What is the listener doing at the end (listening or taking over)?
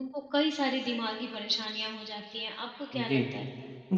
taking over